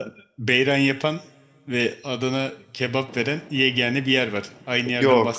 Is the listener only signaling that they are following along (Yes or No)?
No